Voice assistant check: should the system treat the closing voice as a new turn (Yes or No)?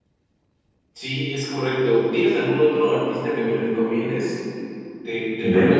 No